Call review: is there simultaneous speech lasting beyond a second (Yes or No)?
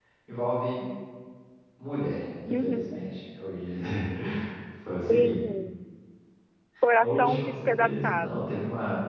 Yes